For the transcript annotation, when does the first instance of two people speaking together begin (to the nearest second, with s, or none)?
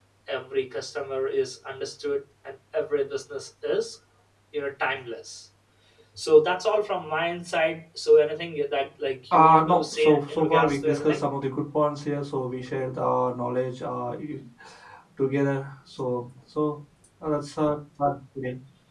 9 s